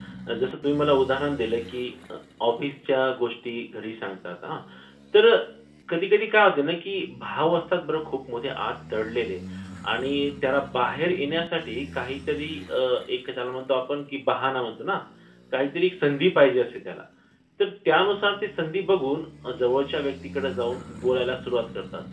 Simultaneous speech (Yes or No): No